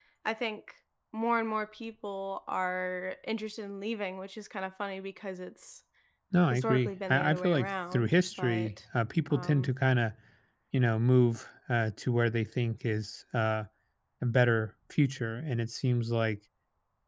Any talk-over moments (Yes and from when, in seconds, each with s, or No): Yes, from 6.5 s